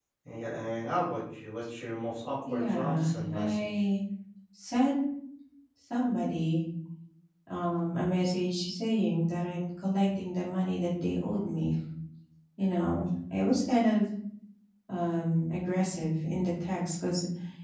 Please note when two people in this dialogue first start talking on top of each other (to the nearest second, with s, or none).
2 s